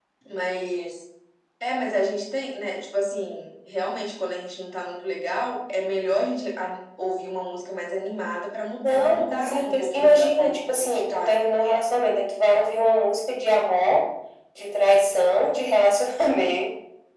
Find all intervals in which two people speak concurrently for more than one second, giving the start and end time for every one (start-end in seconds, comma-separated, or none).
8.9-11.3